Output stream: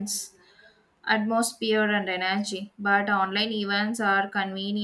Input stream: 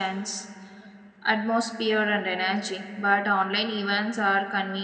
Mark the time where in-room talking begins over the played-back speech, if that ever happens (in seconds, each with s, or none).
none